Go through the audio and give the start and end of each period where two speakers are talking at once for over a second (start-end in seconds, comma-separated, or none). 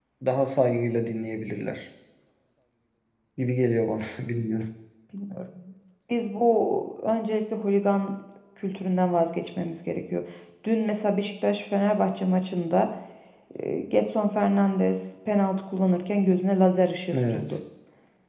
none